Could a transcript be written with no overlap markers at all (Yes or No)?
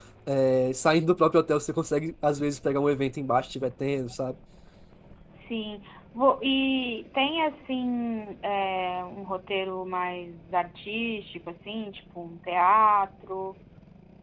Yes